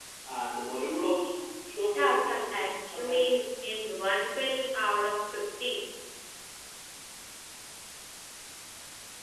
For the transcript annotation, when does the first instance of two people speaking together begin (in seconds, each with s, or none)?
1.9 s